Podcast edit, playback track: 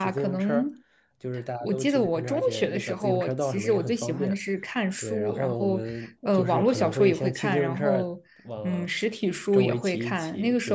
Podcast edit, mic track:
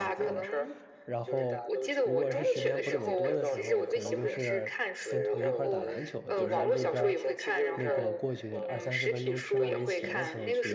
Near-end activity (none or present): present